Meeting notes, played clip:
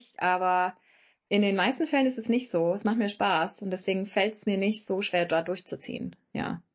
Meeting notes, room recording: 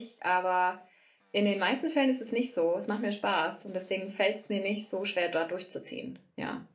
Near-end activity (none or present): none